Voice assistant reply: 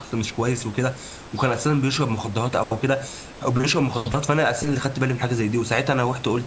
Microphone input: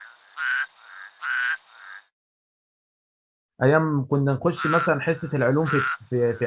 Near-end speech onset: 3.6 s

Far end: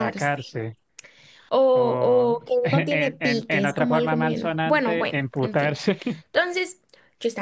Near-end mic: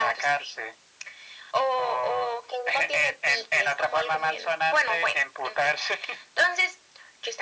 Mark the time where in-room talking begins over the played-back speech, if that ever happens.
none

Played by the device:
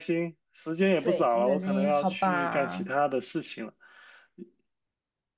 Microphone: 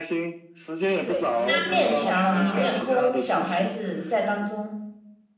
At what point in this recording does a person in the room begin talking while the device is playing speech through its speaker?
1.3 s

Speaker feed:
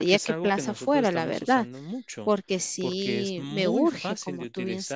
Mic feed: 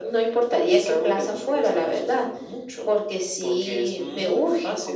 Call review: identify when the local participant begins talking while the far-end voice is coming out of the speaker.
none

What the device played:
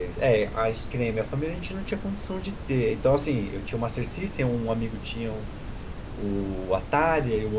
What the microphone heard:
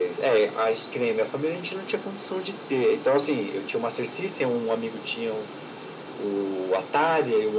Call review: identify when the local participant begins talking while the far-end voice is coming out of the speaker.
none

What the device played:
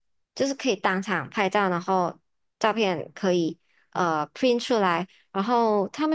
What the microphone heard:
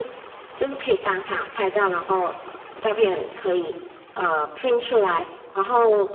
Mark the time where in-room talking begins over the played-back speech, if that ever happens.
none

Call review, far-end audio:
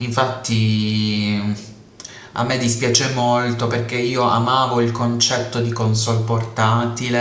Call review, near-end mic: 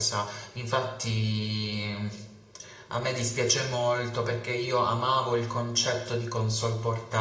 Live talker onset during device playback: none

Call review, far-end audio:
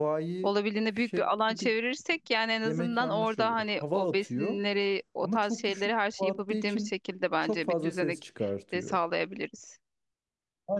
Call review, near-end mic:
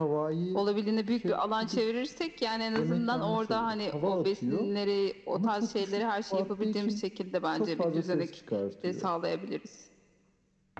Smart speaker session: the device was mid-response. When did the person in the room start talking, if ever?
none

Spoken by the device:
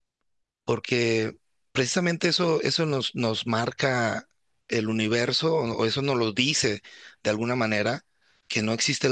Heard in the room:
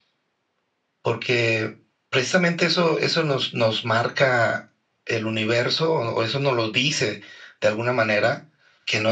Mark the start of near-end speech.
none

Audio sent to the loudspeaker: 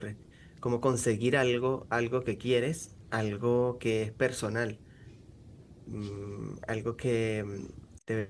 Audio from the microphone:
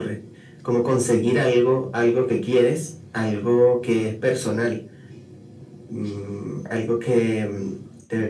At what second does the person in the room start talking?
none

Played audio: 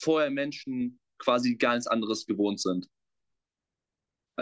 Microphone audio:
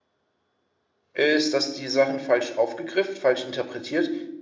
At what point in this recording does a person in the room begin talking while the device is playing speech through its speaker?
1.1 s

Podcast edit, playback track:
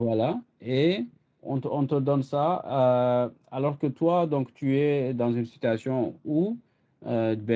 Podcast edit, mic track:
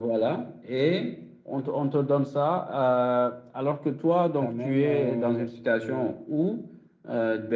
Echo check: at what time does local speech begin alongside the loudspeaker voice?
4.4 s

